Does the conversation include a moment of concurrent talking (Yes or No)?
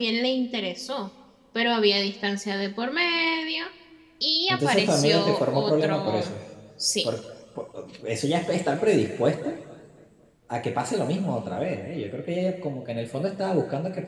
Yes